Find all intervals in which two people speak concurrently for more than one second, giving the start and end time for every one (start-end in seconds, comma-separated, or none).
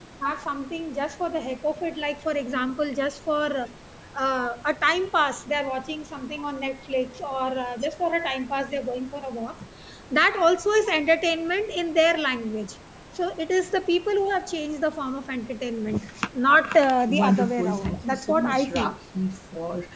17.1-18.9